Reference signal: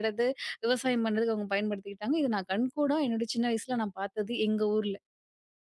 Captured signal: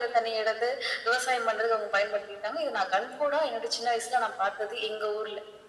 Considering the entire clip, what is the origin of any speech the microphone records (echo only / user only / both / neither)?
echo only